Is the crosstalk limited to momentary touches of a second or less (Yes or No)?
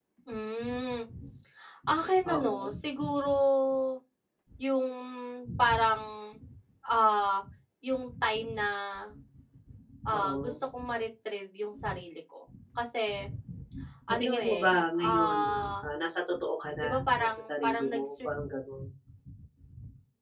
No